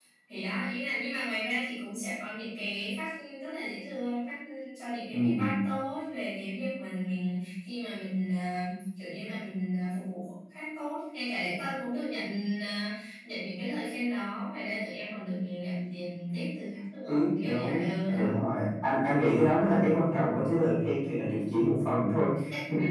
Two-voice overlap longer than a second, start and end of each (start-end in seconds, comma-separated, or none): 17.1-18.4